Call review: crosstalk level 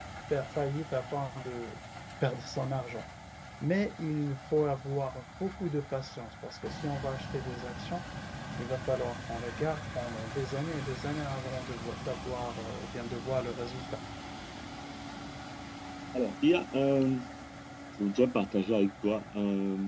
none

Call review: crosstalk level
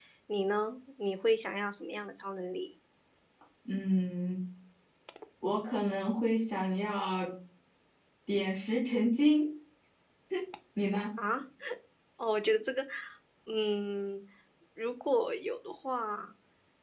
none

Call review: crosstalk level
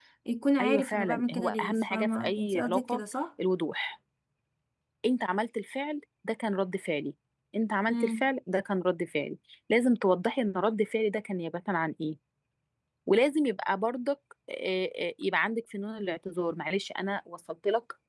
present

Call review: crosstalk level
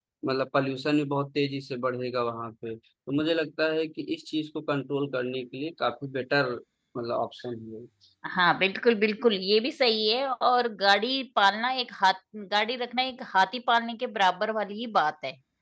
none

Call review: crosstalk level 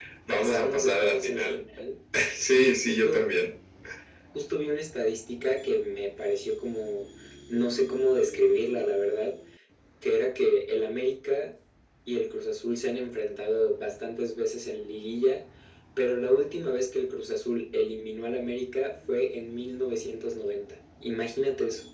present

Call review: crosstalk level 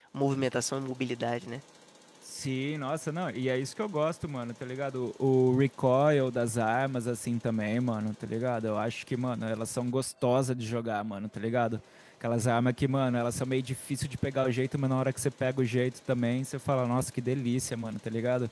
none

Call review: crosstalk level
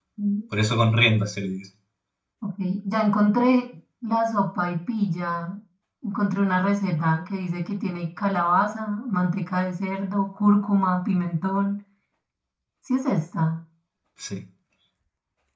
none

